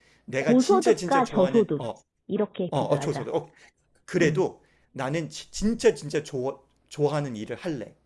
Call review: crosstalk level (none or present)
present